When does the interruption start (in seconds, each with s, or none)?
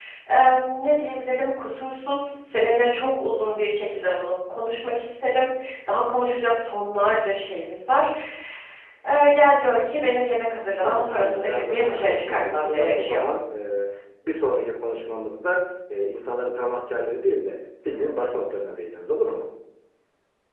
10.8 s